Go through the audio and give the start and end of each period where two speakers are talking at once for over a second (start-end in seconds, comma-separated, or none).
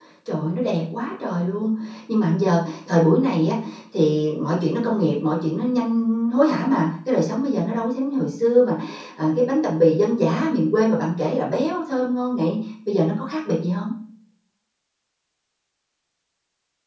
none